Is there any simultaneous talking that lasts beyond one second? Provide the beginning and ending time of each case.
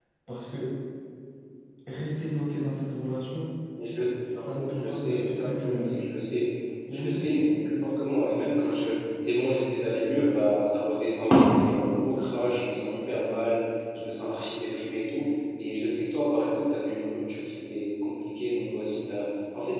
4.3-5.9

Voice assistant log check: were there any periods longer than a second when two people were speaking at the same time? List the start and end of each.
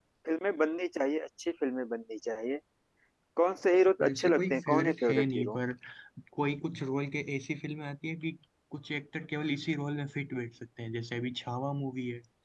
4.0-5.6

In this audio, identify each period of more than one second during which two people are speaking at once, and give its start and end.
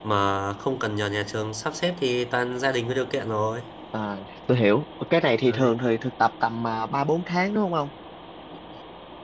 none

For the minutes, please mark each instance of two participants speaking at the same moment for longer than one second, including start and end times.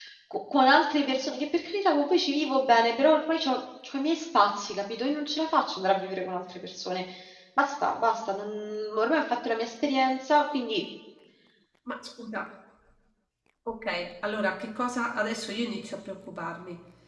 none

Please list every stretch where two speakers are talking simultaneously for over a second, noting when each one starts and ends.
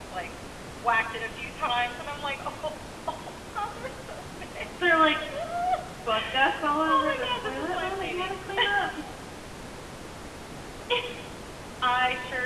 6.9-8.3

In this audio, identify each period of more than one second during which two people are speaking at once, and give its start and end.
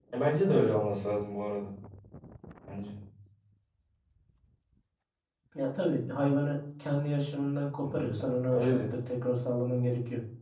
none

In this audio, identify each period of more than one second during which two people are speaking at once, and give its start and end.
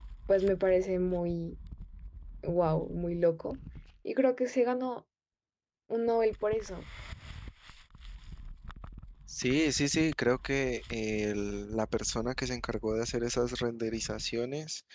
none

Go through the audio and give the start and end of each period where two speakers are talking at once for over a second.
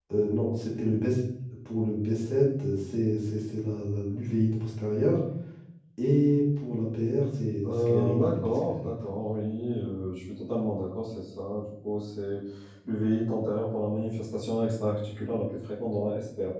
7.6-8.9

